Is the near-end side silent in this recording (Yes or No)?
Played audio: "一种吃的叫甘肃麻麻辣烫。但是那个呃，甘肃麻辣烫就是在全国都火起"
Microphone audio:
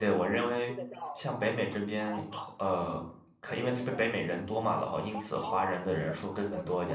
No